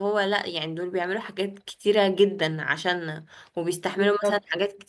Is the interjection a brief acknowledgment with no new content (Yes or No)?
Yes